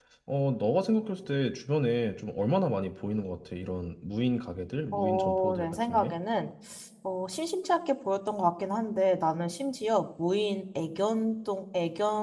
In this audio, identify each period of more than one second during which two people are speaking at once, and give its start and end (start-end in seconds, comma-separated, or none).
4.9-6.1